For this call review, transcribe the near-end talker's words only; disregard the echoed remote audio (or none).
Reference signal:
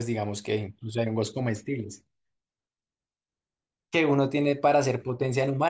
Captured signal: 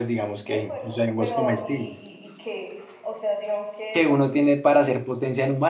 ¿de acuerdo? Pero ¿y, y, y qué? O sea, digamos que,